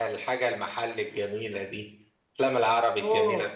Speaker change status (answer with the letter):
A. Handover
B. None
A